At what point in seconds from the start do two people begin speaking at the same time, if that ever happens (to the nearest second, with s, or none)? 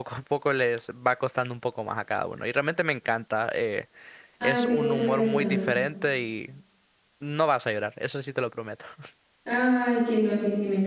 4 s